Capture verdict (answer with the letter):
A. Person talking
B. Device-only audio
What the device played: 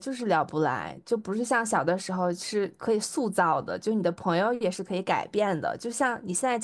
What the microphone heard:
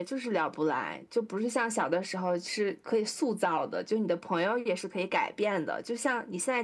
B